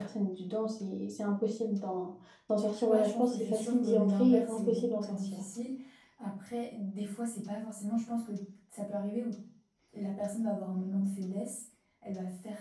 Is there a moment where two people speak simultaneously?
Yes, from 2.9 s

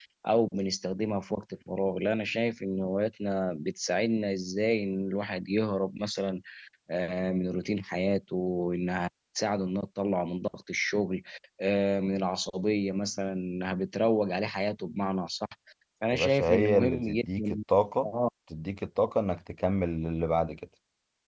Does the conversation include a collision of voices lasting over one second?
Yes, from 16.1 s

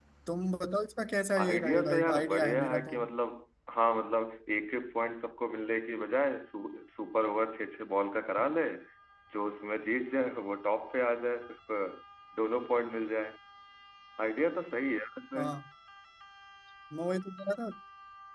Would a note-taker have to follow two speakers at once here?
Yes, from 1.4 s

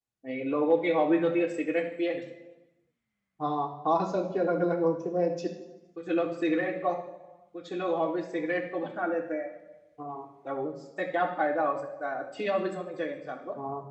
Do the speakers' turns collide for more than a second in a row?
No

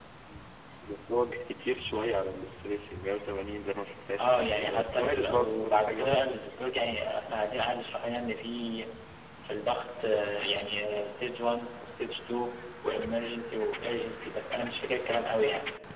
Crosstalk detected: Yes, from 4.2 s

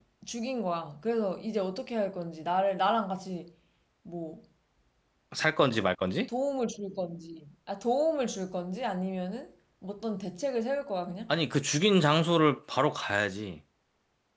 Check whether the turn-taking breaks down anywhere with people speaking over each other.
No

